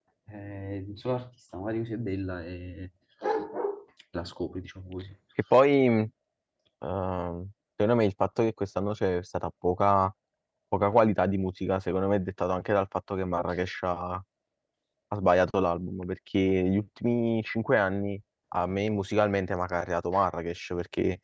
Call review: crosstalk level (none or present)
none